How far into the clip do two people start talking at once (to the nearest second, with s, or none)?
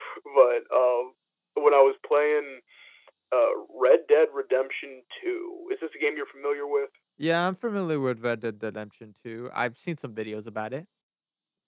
none